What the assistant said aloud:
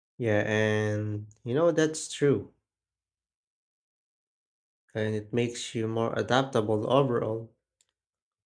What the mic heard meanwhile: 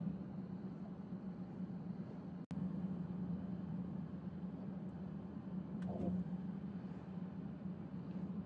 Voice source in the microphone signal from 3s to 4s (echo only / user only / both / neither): neither